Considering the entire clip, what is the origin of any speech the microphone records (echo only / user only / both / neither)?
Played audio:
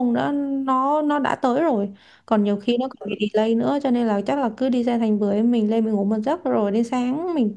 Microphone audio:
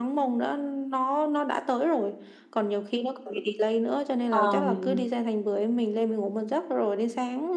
both